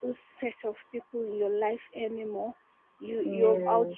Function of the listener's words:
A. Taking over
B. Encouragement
B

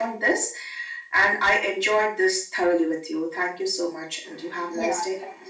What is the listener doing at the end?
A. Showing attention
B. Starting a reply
B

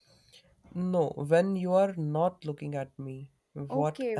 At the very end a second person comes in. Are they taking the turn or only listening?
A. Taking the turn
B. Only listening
A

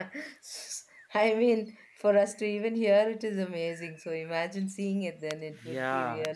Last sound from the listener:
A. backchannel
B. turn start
B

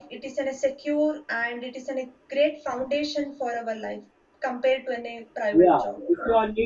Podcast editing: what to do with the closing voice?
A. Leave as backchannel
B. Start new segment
B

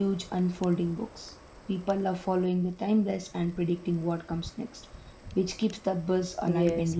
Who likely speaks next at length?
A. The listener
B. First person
A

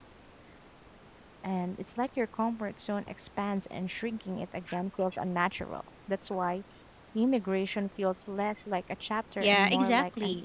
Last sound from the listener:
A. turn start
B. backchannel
A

